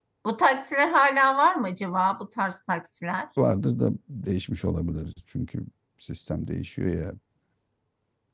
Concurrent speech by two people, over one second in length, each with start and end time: none

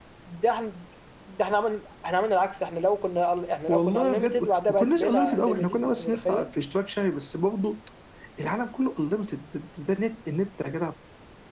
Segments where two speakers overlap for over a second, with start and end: 3.7-6.5

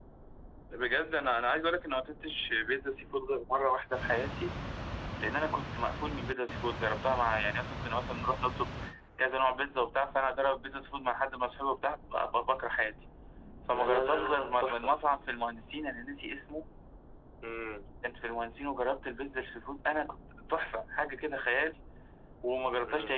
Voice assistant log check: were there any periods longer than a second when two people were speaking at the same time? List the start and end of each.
13.7-15.0

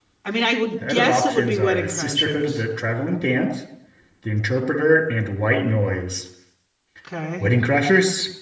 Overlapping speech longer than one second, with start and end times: 0.9-2.6

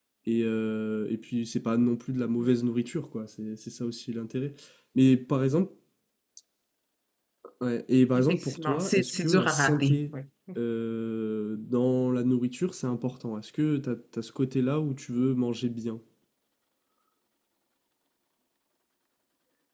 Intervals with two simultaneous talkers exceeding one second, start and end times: 8.1-10.0

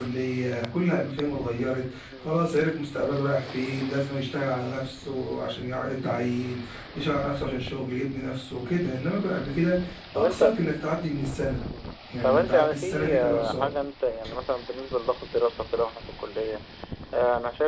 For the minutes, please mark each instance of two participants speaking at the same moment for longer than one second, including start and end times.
12.2-13.7

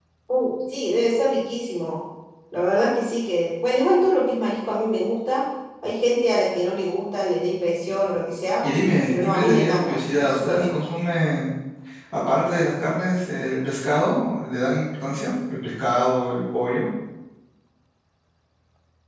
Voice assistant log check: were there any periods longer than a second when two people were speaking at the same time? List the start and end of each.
9.2-10.8

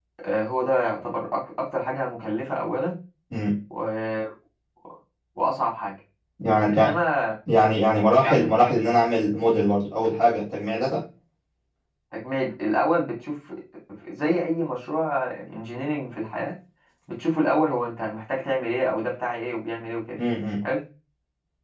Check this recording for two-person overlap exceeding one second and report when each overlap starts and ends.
none

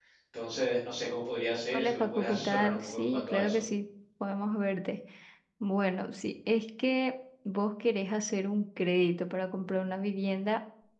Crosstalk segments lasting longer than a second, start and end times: 1.7-3.6

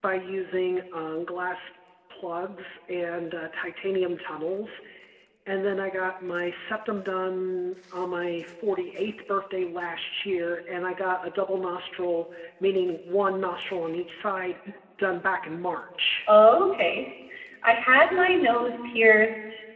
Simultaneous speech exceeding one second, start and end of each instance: none

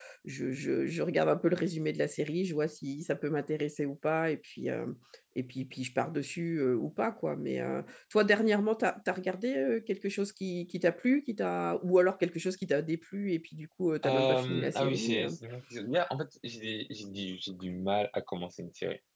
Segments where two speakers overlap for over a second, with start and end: 14.1-15.3

